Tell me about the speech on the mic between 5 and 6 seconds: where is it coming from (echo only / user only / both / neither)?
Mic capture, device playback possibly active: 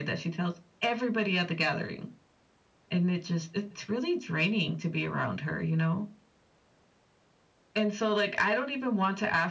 echo only